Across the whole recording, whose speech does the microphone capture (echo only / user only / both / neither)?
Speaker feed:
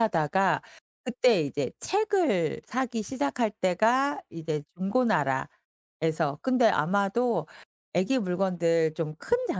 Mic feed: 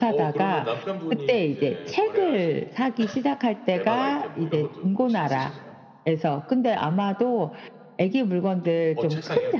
both